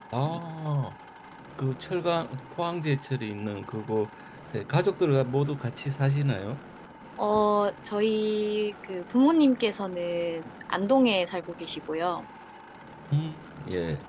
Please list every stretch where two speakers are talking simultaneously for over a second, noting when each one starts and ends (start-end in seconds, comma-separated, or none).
none